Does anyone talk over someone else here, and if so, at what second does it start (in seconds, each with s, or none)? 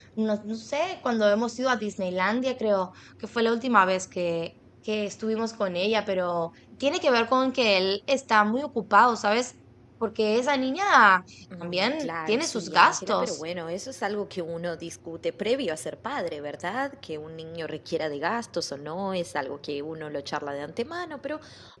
11.6 s